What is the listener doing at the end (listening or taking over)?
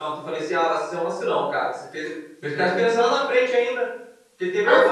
listening